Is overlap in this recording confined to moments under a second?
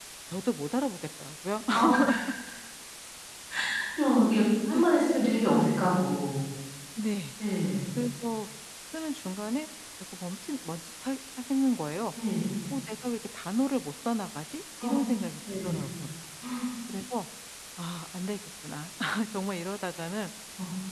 Yes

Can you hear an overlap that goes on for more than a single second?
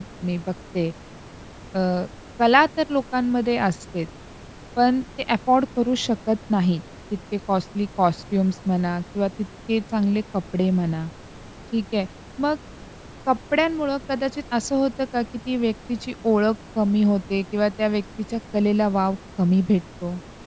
No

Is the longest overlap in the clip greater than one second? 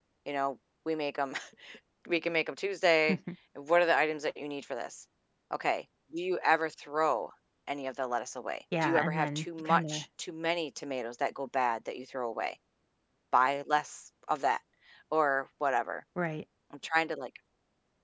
Yes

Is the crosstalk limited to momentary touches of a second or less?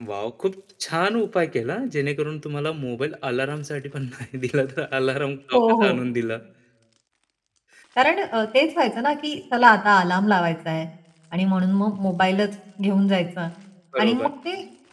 Yes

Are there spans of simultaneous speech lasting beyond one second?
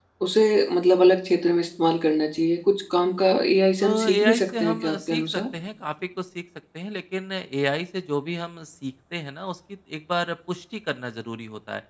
Yes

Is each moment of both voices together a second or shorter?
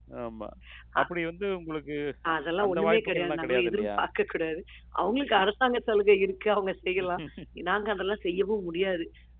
No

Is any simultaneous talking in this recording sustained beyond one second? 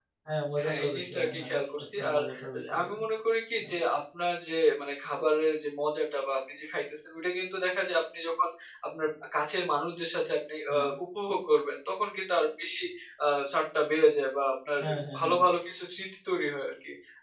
Yes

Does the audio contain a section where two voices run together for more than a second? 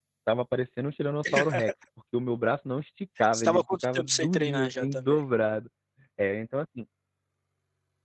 Yes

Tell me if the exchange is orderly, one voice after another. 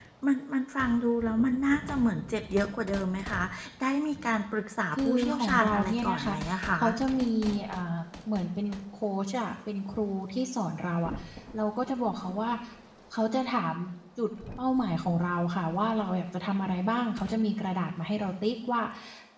No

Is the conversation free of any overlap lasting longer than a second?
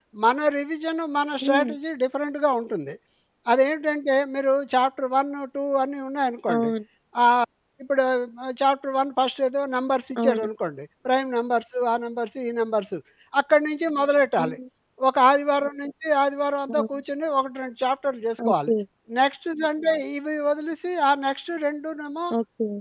Yes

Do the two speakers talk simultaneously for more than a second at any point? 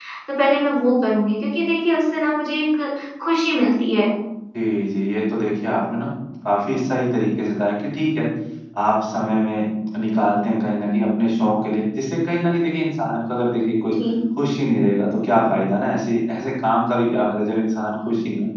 No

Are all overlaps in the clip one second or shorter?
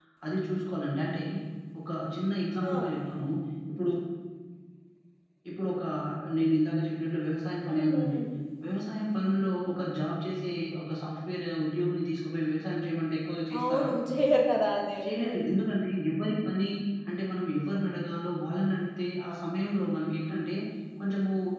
Yes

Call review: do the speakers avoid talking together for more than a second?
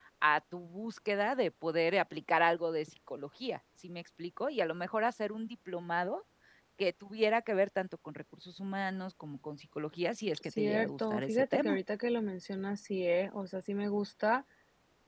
No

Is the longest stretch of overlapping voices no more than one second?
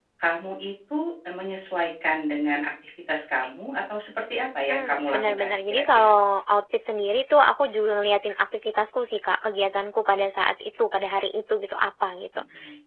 No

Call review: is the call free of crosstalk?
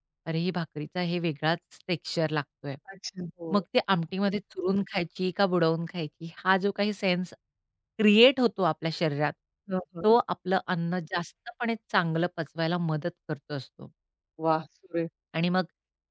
Yes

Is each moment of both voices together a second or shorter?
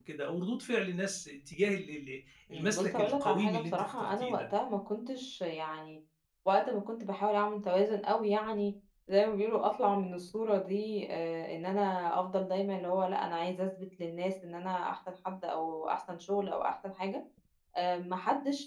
No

